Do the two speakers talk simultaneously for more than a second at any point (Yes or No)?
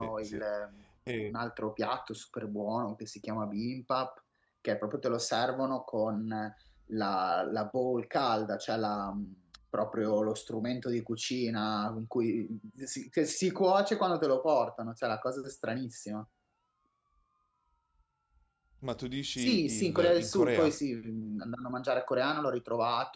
Yes